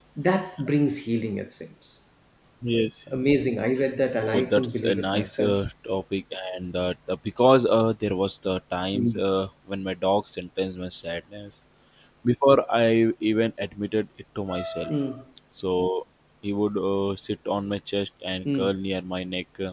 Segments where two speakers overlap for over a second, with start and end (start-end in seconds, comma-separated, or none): 4.1-5.6